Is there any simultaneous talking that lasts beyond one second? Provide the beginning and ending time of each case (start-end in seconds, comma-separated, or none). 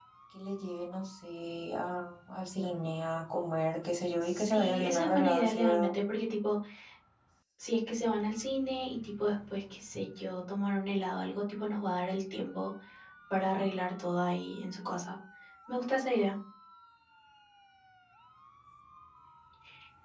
4.2-5.9